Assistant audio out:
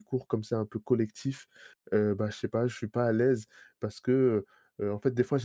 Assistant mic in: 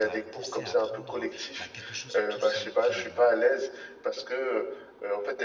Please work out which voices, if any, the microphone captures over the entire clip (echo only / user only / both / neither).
both